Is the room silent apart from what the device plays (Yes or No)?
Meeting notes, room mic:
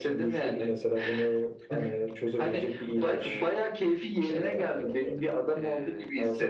No